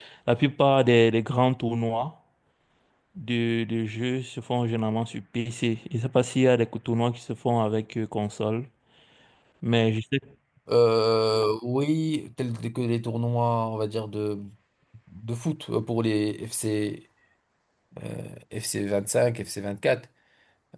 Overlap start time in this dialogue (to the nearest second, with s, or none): none